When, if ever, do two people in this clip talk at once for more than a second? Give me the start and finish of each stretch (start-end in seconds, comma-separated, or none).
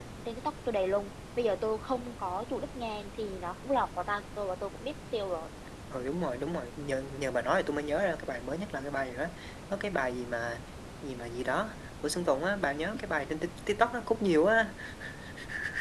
none